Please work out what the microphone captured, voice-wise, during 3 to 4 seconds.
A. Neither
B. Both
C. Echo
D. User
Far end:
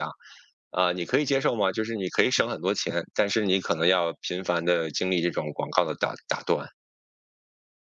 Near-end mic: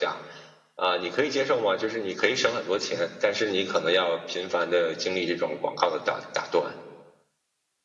C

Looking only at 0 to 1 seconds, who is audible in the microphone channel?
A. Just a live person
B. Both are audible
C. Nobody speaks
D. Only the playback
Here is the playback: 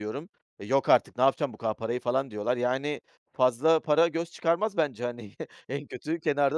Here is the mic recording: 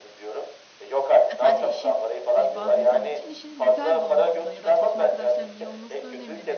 D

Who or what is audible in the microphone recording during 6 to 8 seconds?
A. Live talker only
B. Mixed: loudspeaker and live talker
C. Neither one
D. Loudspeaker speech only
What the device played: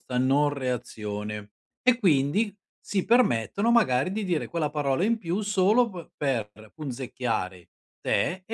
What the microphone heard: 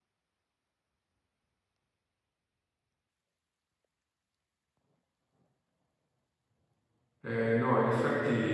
A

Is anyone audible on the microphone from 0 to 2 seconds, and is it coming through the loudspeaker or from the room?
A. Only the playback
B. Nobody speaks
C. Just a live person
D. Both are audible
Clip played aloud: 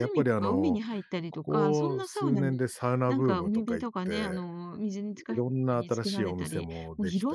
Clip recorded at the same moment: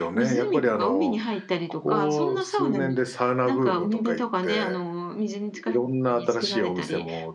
A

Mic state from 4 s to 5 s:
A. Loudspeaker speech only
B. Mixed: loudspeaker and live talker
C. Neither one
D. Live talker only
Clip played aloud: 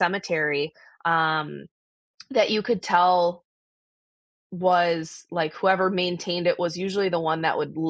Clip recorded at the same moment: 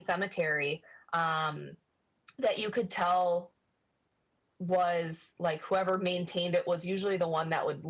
A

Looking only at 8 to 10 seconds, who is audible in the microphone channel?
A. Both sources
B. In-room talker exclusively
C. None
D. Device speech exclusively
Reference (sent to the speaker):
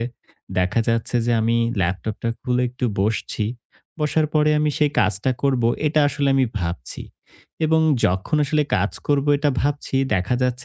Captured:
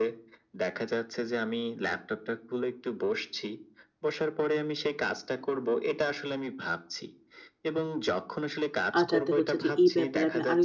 A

